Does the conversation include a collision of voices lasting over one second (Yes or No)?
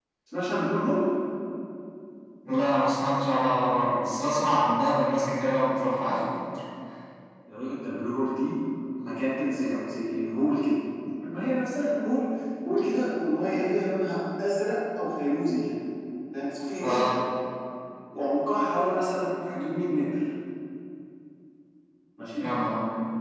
No